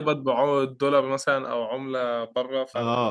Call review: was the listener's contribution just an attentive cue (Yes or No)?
No